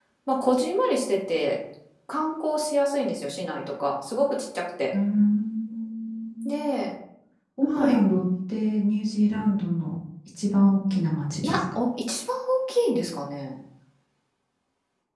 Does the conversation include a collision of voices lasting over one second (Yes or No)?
No